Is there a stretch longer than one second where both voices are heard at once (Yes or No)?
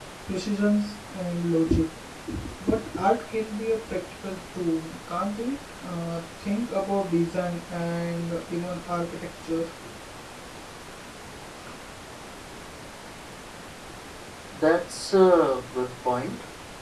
No